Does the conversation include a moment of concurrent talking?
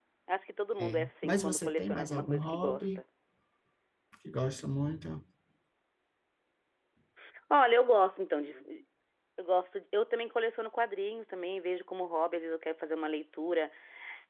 Yes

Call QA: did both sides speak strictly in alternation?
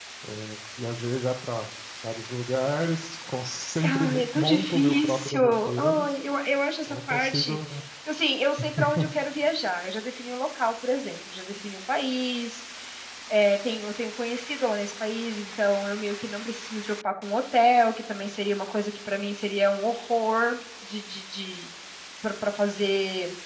No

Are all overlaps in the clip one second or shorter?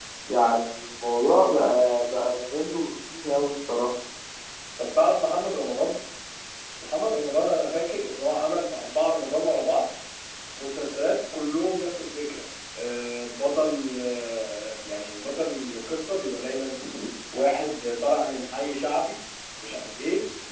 Yes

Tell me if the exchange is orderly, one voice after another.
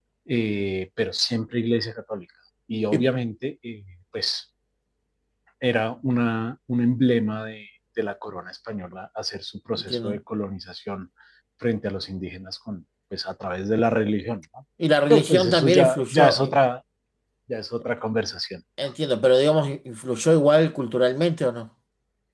No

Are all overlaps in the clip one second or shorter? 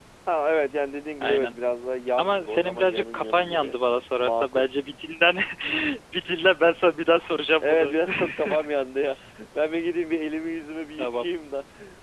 No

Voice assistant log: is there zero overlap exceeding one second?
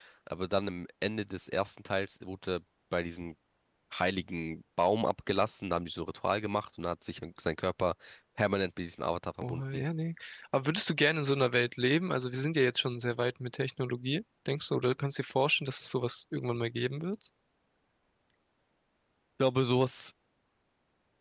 Yes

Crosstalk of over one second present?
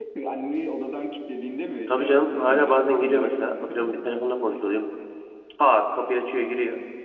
Yes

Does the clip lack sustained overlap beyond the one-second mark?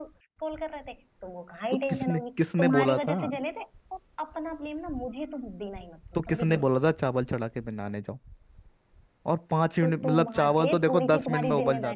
No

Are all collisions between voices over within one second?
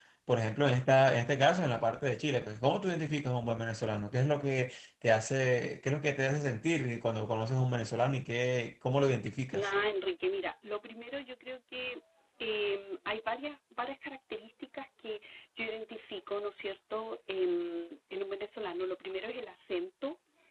Yes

